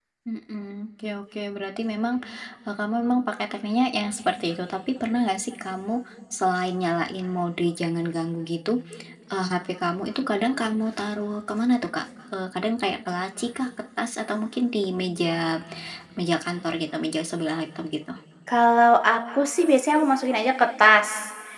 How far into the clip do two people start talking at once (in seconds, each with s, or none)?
none